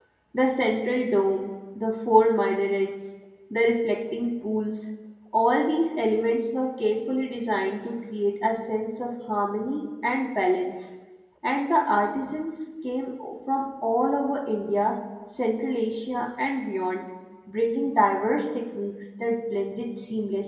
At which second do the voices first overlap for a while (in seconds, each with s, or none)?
none